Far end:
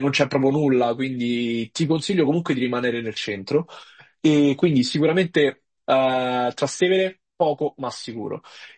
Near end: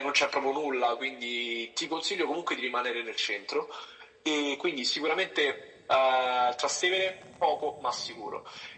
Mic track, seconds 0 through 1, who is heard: echo only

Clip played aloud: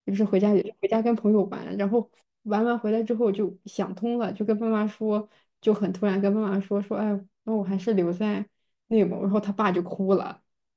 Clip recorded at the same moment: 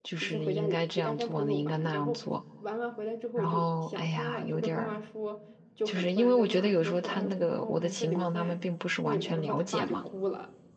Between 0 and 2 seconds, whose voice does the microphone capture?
both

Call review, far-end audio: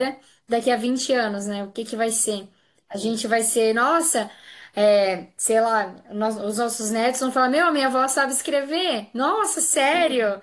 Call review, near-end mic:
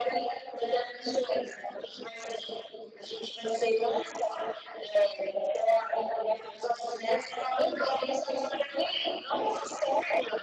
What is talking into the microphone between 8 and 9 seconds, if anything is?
echo only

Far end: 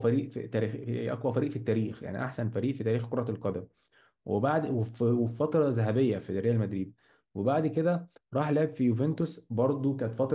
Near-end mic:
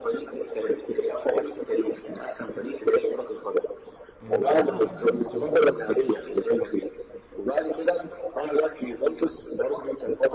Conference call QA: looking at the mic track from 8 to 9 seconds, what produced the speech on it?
echo only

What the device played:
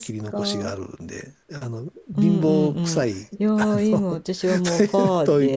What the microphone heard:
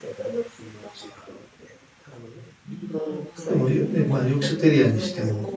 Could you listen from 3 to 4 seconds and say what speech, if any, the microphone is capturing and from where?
both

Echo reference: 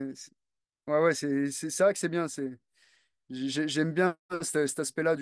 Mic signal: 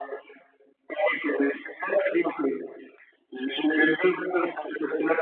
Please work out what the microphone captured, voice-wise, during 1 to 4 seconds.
echo only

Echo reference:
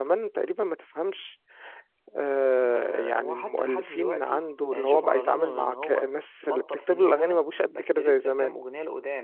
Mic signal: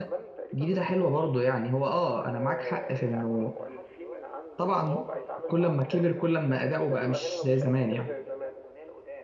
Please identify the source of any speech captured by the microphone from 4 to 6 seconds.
both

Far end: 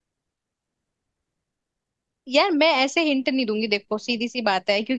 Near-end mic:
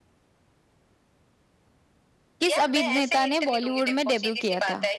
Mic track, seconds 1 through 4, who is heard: both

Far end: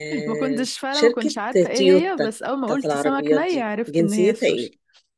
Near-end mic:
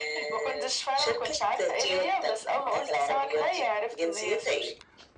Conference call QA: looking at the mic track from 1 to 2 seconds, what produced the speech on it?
echo only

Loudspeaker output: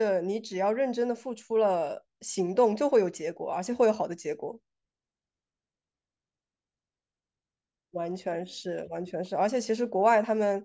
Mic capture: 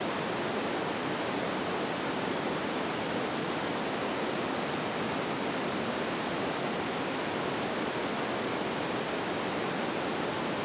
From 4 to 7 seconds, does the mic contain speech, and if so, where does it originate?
neither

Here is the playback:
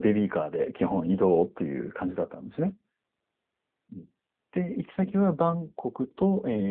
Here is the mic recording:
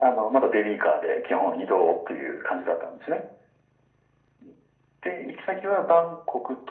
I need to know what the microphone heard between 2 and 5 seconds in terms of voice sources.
echo only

